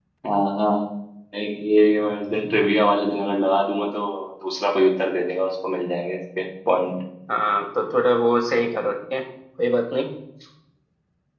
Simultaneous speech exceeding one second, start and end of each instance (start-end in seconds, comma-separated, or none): none